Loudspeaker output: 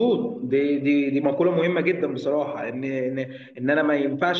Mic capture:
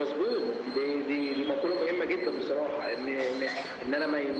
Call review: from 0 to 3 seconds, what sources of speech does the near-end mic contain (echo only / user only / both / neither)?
echo only